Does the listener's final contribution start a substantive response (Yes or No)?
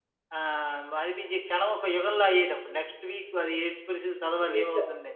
Yes